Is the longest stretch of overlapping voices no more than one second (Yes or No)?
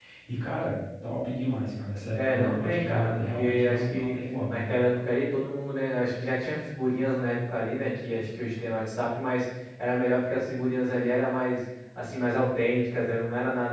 No